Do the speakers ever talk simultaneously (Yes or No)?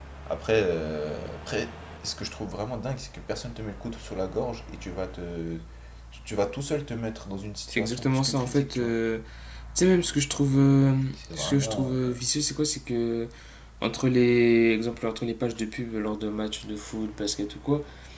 Yes